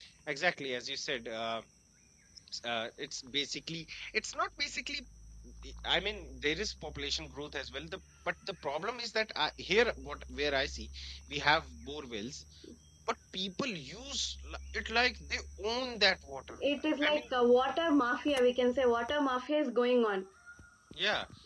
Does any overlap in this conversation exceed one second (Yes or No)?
No